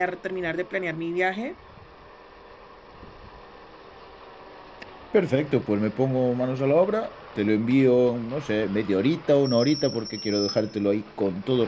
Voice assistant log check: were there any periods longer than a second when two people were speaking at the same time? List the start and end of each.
none

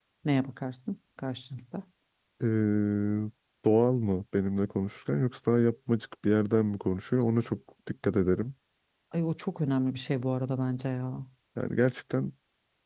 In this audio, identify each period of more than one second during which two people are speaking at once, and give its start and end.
none

